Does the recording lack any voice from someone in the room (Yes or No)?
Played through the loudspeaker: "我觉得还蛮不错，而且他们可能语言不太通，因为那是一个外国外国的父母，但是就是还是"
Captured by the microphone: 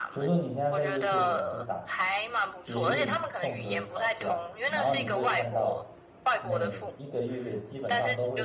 No